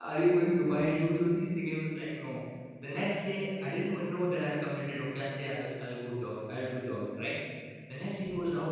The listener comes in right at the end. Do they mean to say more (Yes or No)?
No